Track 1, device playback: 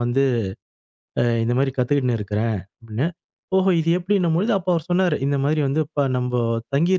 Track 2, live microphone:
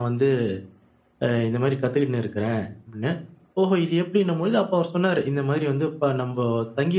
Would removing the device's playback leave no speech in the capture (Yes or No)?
Yes